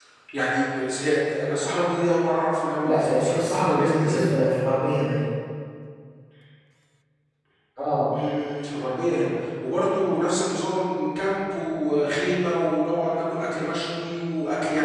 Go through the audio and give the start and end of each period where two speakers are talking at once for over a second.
2.8-4.4

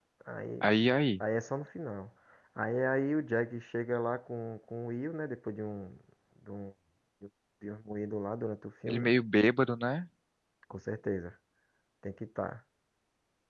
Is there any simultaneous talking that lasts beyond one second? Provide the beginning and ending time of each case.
none

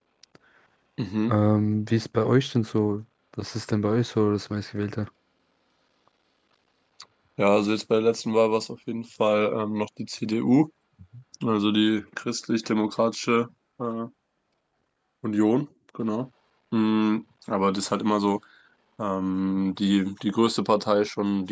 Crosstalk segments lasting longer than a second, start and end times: none

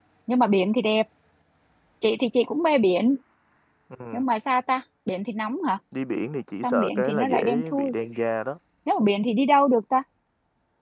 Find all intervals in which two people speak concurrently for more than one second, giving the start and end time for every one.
6.6-7.9

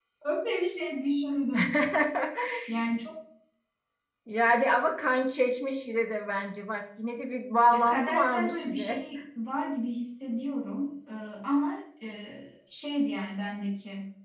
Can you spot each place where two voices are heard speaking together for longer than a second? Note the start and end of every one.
7.7-9.0

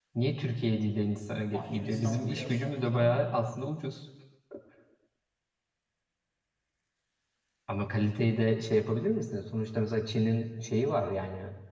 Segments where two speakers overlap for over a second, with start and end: 1.5-3.1

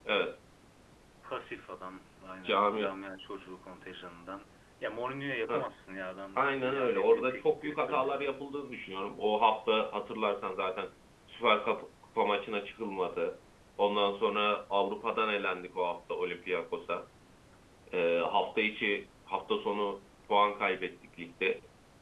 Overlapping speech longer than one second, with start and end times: 6.4-8.4

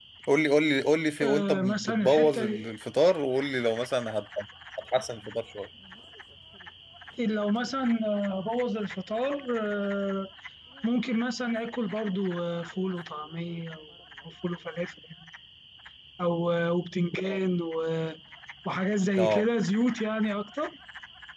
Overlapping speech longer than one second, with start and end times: 1.2-2.7

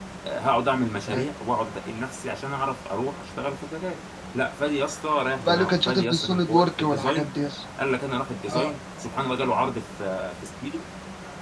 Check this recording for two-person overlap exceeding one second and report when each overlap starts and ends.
5.4-7.3

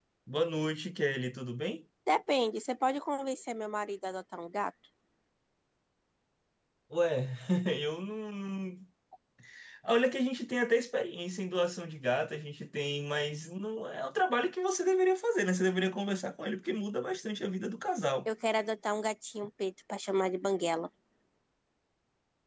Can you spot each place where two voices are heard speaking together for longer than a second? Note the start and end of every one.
none

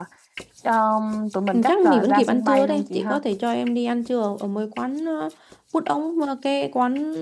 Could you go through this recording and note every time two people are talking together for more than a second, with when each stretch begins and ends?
1.5-3.2

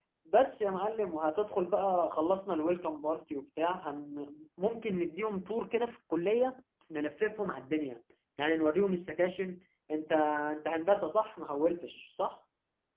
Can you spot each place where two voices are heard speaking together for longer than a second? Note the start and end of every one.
none

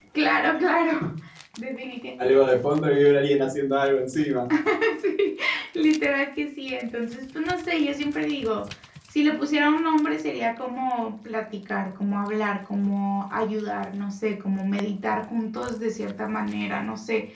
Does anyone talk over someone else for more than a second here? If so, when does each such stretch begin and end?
none

